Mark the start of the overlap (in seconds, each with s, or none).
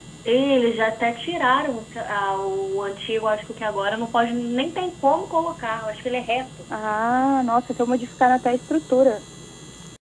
none